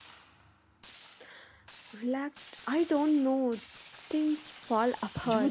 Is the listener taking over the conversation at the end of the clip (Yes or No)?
Yes